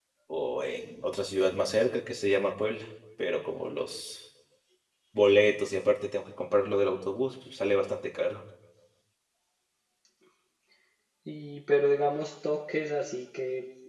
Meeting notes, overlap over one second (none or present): none